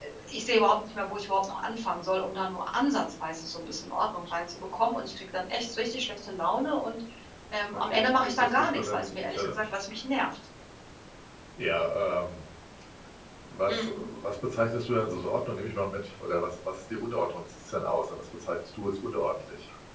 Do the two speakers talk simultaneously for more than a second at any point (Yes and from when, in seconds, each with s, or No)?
Yes, from 7.7 s